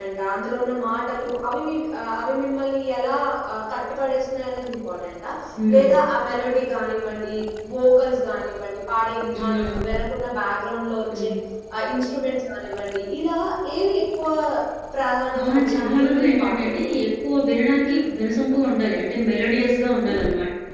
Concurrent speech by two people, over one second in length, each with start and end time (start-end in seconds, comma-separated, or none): 15.4-16.9